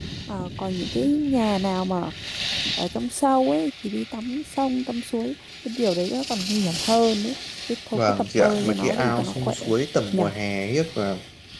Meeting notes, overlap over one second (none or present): present